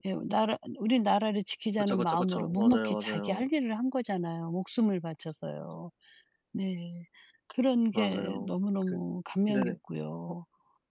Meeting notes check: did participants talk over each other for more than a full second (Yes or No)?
Yes